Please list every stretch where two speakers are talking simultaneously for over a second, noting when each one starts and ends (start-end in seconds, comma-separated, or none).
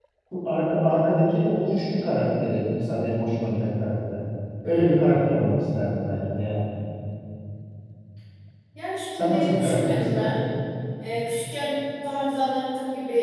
9.2-10.4